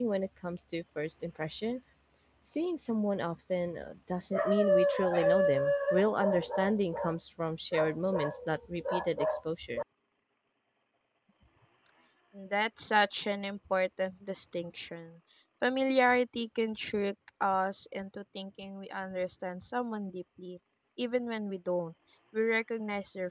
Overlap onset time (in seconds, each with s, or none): none